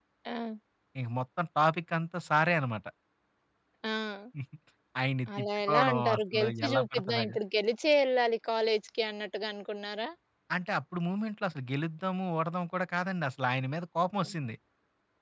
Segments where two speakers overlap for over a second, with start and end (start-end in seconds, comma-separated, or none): 5.4-7.3